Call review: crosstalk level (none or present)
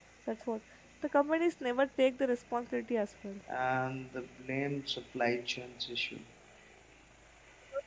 none